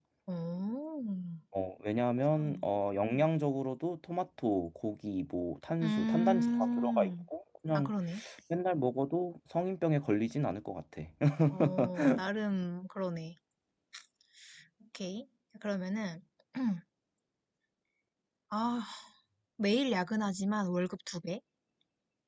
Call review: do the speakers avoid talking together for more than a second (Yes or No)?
No